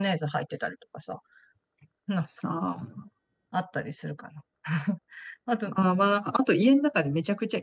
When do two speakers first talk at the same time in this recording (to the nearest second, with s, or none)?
none